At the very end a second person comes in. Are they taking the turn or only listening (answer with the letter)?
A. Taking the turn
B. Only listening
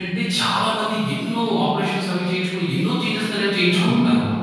A